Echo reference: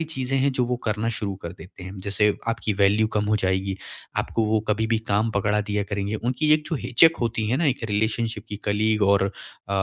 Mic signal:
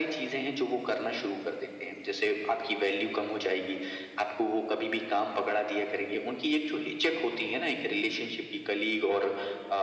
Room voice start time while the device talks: none

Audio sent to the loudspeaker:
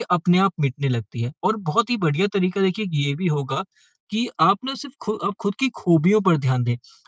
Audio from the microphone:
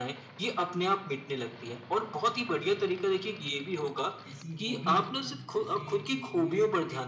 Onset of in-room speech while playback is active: 4 s

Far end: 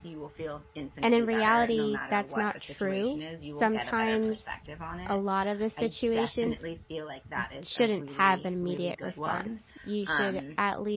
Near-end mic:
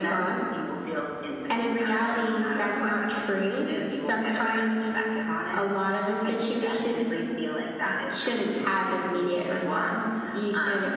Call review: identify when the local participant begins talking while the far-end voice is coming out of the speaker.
none

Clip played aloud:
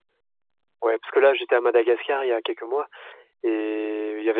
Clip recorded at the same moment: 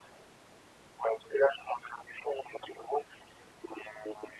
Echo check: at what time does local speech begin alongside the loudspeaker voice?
none

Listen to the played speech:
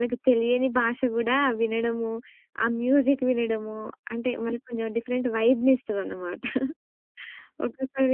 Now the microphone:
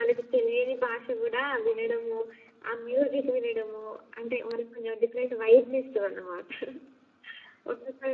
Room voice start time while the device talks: none

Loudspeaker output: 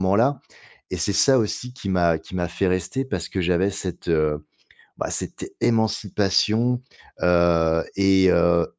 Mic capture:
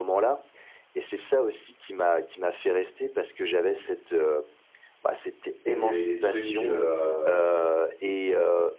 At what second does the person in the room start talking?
6 s

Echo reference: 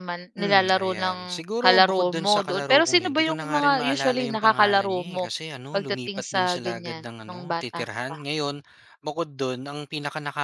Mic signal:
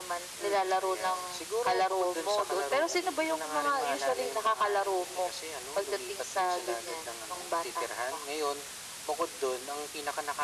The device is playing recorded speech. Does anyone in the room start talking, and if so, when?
none

